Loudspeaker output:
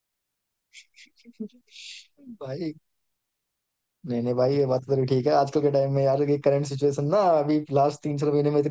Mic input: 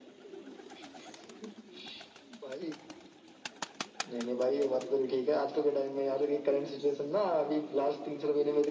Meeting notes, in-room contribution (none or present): none